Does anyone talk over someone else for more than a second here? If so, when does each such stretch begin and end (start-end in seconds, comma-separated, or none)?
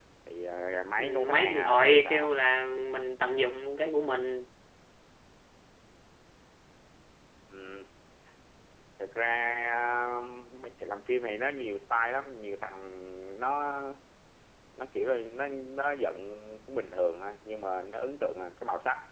1.0-2.3